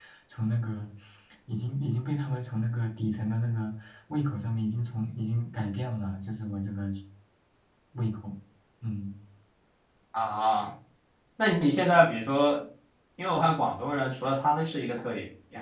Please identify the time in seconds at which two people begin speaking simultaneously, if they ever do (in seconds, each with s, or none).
none